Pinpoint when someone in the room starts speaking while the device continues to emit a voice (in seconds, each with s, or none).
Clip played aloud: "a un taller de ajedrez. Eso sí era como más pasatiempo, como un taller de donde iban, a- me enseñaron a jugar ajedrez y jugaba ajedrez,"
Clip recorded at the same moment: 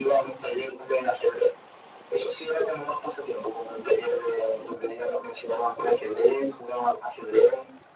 none